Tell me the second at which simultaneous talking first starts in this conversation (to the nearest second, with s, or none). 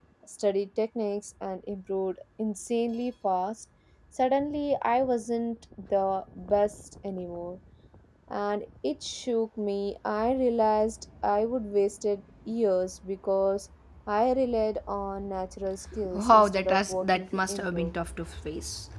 16 s